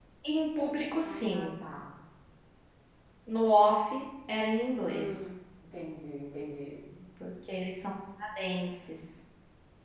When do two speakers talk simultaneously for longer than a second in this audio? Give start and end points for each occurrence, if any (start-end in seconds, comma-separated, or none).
none